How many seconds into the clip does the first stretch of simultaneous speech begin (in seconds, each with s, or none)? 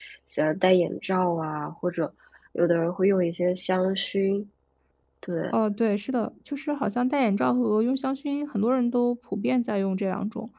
none